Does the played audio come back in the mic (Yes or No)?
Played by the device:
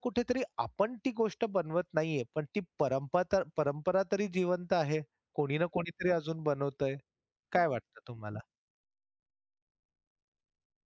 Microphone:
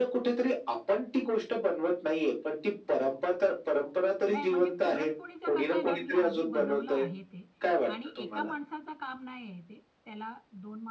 Yes